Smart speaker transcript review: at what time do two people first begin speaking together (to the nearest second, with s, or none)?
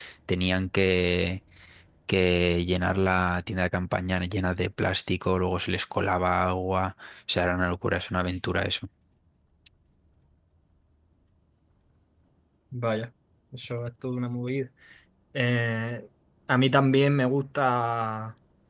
none